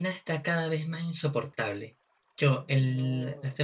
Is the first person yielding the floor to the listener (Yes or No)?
No